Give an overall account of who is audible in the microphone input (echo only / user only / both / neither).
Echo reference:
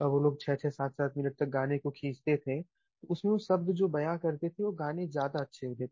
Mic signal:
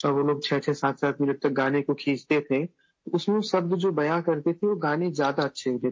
echo only